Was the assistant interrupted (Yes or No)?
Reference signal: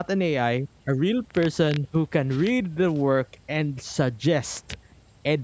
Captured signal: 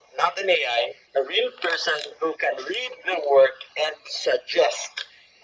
No